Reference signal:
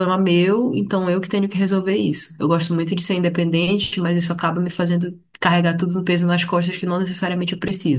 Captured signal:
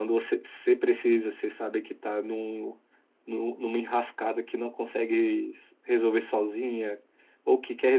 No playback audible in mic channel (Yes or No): Yes